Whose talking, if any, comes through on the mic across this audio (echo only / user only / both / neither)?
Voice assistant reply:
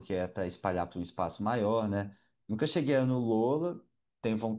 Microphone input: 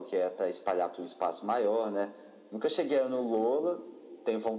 echo only